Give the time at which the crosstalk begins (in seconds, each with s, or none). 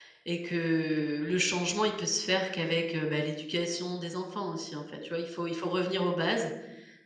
none